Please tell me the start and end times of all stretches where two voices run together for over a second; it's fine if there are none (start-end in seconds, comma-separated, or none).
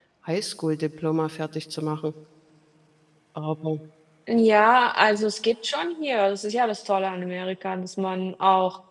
none